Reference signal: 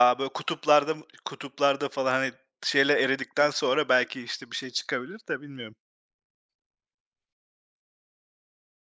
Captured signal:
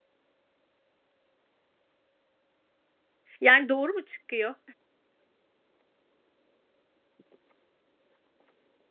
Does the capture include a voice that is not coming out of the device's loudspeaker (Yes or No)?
Yes